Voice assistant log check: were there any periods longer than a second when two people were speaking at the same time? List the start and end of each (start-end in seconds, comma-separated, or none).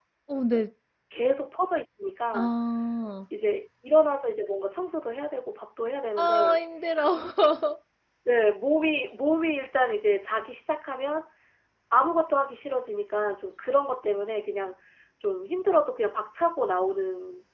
none